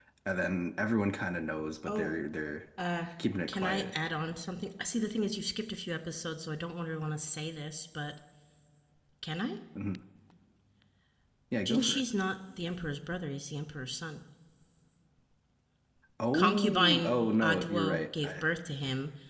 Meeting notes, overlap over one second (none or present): present